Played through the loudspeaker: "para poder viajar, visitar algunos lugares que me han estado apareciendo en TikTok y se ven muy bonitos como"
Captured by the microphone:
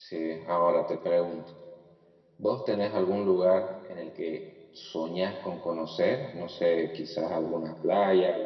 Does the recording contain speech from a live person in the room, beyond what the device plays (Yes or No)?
Yes